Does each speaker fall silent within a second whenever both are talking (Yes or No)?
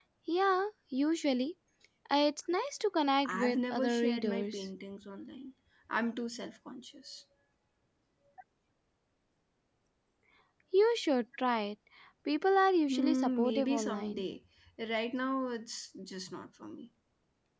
No